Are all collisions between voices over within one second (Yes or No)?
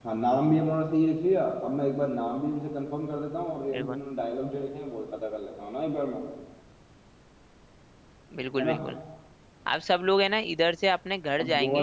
Yes